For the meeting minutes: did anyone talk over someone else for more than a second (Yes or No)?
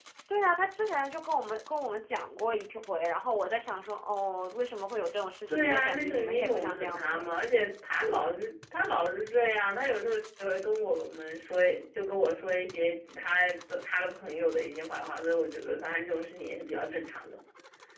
Yes